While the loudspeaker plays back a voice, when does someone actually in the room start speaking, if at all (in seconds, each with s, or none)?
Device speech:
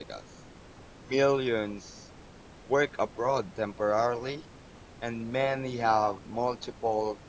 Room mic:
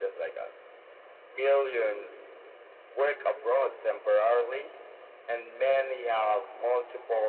none